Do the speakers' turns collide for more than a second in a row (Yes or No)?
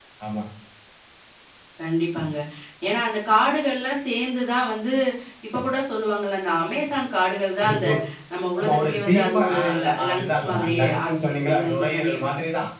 Yes